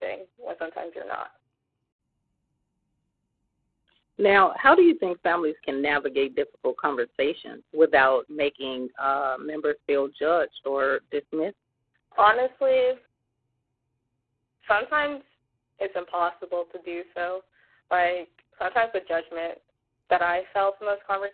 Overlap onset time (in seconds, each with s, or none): none